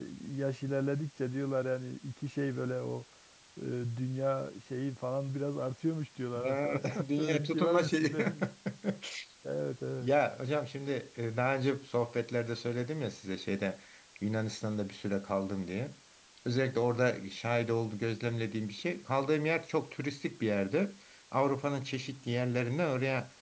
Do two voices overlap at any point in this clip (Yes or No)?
Yes